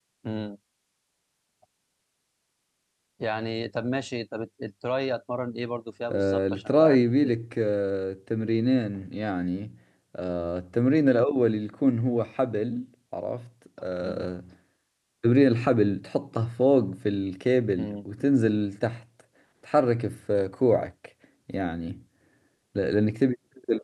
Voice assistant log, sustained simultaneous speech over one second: present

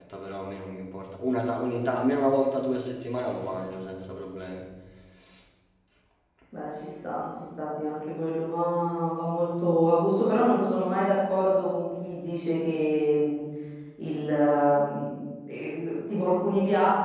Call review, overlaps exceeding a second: none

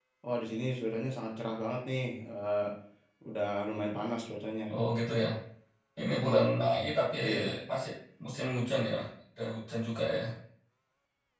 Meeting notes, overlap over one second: none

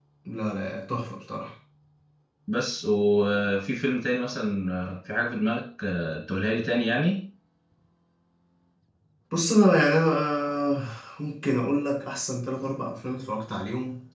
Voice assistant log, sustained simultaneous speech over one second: none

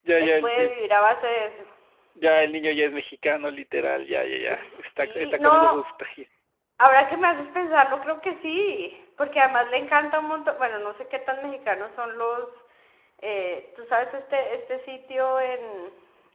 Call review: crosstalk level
present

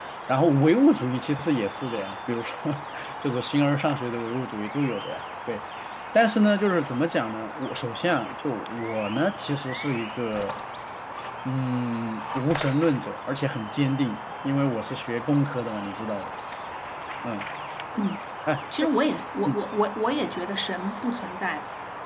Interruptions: none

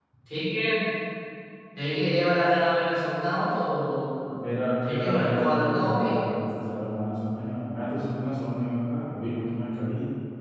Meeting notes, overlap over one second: present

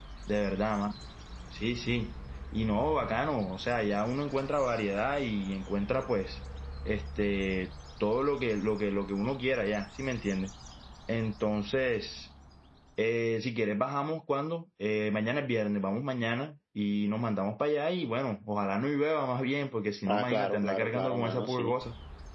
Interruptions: present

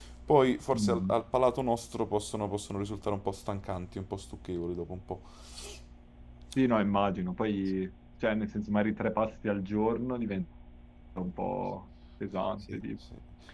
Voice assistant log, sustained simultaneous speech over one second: none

